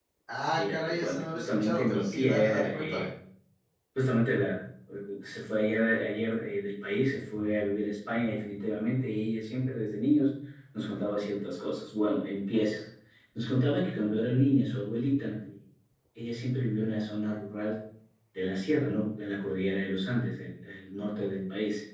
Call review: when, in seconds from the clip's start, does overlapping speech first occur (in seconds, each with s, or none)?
0.6 s